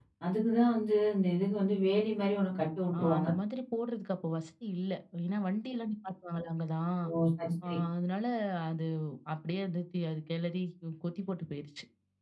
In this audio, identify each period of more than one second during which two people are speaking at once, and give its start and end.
none

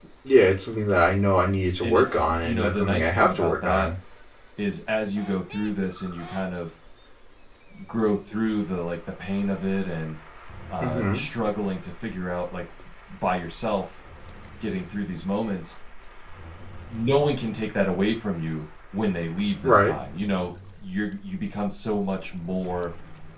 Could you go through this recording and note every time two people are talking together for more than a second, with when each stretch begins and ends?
1.8-3.9

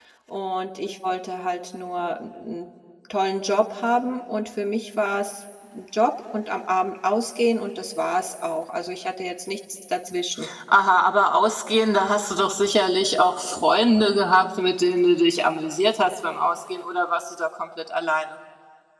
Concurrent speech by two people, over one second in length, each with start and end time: none

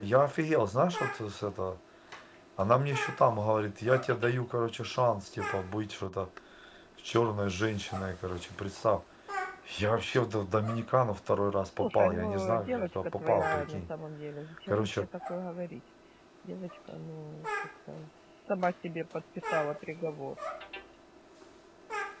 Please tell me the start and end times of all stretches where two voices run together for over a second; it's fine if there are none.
11.8-13.9

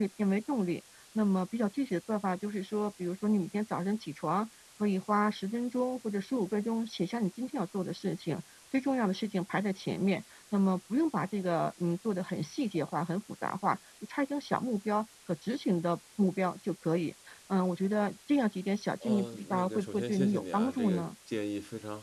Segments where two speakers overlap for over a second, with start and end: 19.0-21.1

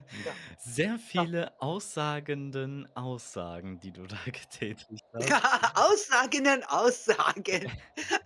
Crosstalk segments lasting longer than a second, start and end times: none

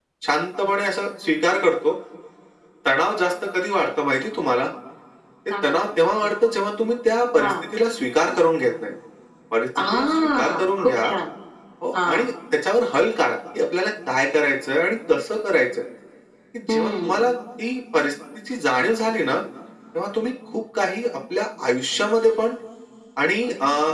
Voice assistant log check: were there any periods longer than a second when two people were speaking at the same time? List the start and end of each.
9.8-11.1

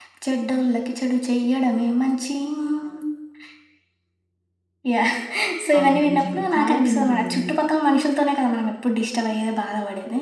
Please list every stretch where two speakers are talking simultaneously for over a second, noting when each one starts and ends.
5.8-7.6

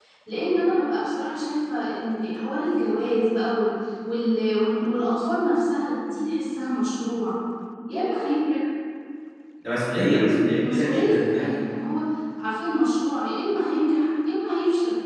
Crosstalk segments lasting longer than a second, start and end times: 10.0-11.6

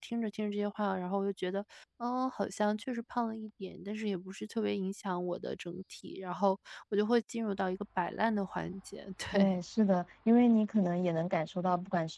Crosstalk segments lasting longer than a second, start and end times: none

